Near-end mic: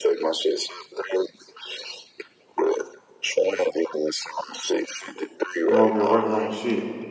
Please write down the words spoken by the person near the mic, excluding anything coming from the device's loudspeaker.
I'm over here working on my shit.

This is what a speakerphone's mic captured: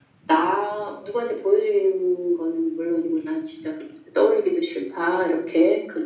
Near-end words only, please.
none

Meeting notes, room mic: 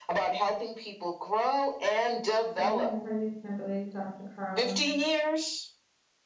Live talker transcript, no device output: Hey, how are you, Kimberly? Dr. Carla?

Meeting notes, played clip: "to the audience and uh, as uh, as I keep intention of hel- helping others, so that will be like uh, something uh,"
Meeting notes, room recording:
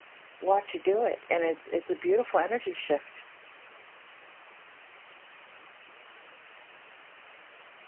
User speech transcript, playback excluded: watch you do it. And it's, it's a beautiful energy shift

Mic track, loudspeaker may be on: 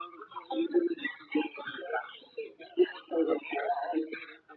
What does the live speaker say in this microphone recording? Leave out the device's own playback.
none

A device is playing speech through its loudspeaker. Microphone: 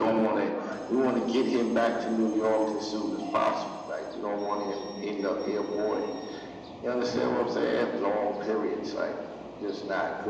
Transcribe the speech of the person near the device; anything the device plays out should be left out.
none

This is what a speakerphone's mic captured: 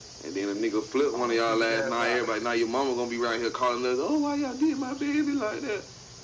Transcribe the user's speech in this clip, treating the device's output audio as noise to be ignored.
Almost took his ass out.

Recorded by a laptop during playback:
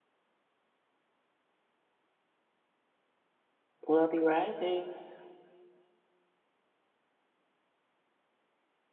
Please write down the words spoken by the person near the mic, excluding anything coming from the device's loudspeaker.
Wealthy Risings.

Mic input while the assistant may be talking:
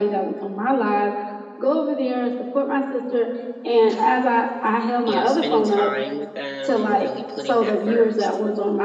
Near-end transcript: you know, spending time with them and really putting that first.

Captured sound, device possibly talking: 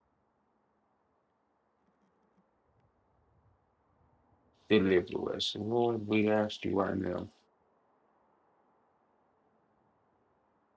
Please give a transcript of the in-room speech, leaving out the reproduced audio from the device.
deliver us. And Lord, we ask you right now

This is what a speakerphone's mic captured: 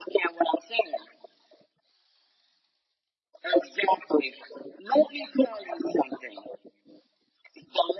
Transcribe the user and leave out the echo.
none

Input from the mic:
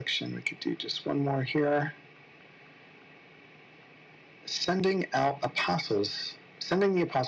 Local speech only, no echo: none

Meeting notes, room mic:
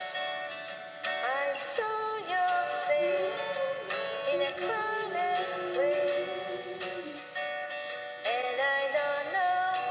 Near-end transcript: I am not the only one.

